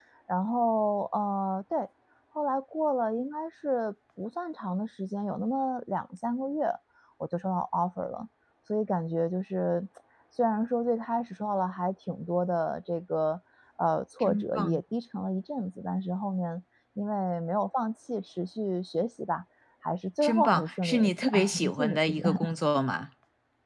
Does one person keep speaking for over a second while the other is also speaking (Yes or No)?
Yes